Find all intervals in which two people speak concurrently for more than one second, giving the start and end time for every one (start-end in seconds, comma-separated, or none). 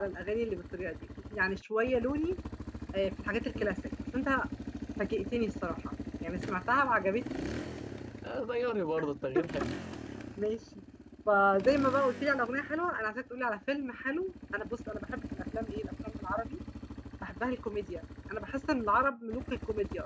none